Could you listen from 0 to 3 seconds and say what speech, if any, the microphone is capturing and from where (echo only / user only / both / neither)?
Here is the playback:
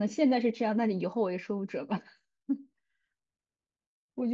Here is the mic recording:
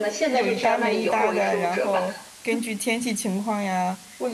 both